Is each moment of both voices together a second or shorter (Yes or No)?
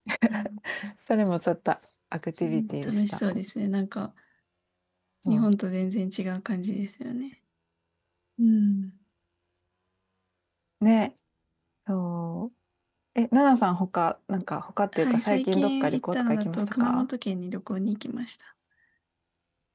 No